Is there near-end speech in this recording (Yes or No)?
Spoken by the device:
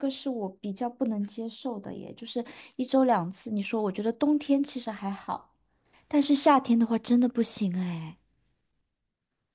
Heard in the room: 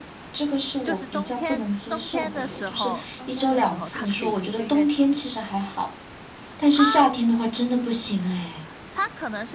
Yes